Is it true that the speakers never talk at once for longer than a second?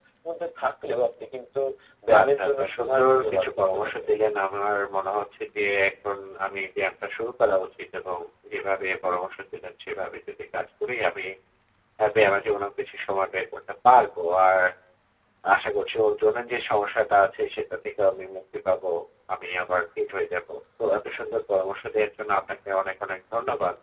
No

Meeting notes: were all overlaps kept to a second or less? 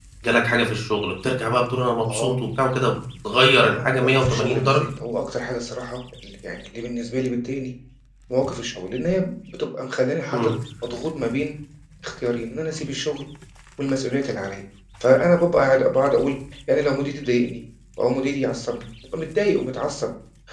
No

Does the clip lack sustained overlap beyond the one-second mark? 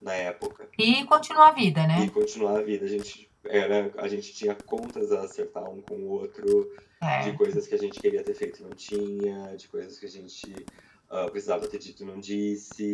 Yes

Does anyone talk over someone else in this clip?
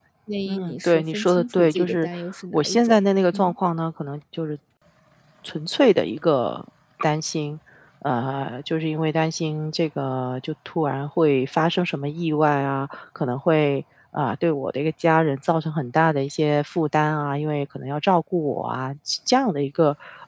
Yes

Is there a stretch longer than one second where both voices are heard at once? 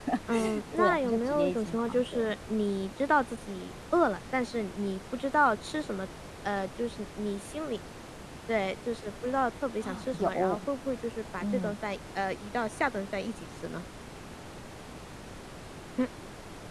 Yes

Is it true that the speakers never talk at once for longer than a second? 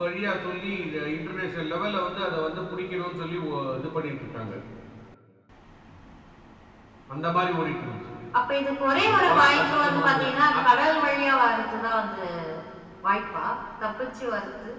No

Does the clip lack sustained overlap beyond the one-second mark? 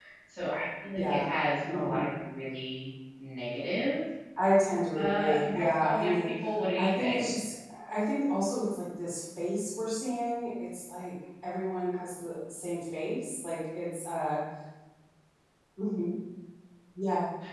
No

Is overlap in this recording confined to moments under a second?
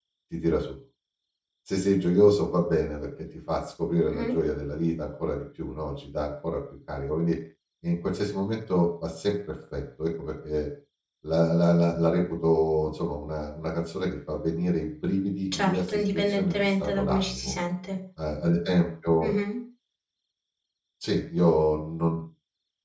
No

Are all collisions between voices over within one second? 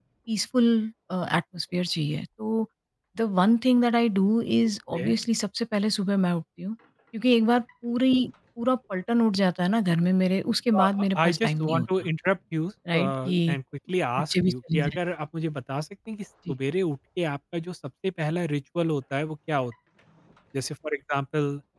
No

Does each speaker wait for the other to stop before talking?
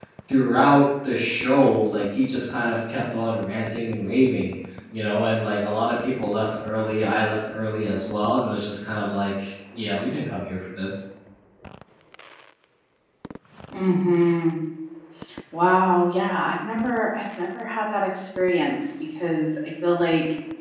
Yes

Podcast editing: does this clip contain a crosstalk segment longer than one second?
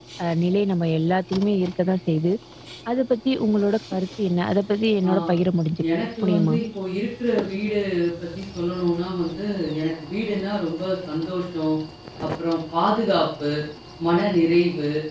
No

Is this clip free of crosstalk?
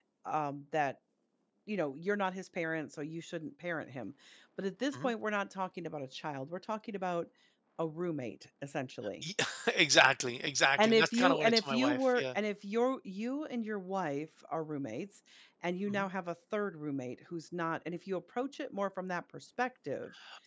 No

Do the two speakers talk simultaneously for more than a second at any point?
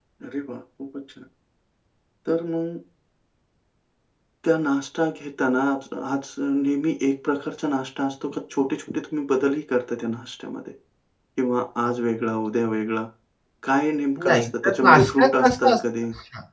Yes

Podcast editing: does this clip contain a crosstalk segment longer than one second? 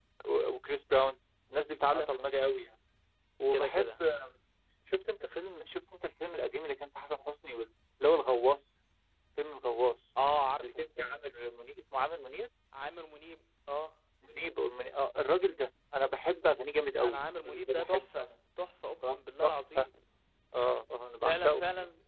Yes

